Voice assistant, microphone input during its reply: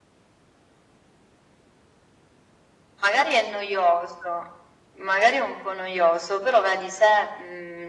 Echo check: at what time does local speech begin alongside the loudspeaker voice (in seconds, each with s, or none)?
none